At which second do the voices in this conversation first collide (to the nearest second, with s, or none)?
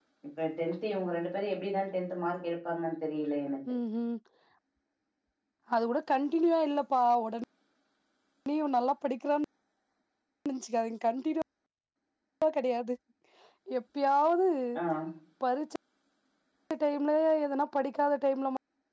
none